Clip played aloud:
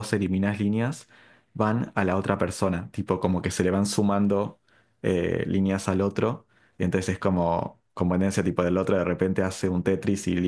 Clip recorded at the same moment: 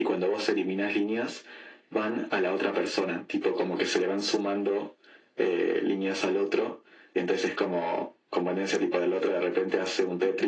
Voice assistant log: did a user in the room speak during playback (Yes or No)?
No